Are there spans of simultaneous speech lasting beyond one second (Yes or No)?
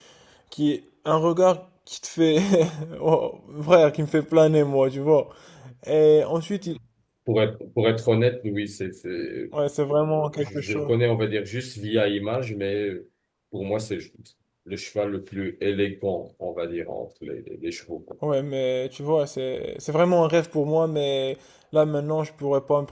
No